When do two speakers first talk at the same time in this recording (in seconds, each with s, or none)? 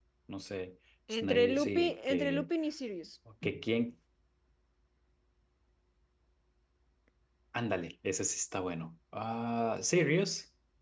1.2 s